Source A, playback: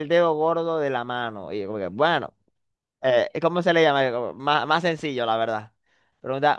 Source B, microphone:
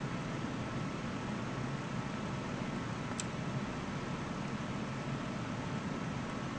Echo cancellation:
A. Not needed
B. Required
A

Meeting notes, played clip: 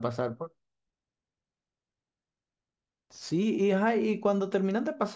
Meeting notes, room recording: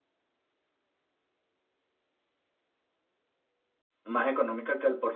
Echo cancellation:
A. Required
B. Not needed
B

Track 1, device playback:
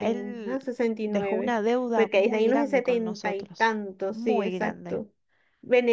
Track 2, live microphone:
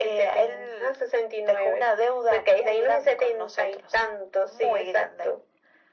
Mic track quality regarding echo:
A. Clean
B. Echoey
B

